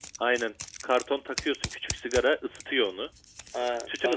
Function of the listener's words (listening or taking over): taking over